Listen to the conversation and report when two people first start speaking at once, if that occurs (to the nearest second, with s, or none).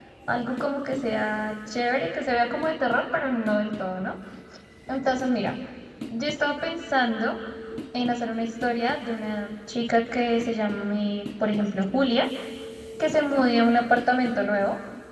none